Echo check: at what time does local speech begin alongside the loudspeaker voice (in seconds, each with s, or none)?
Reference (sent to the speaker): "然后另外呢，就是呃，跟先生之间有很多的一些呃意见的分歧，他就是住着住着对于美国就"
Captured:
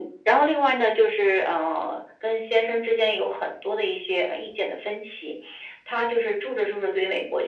none